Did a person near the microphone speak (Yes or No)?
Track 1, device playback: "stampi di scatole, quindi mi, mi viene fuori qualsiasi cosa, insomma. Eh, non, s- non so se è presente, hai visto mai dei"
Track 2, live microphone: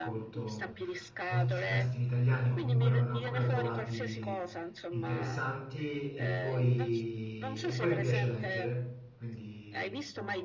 Yes